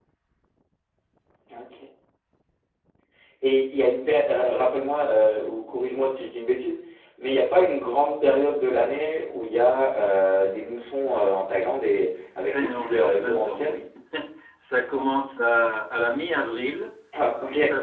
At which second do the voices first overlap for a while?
12.5 s

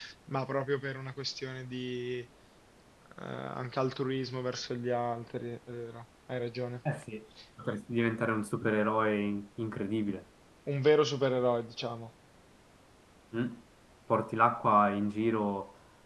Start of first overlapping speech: none

